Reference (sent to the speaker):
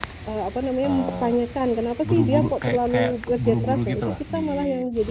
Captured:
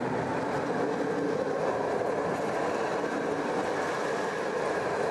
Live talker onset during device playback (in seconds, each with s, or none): none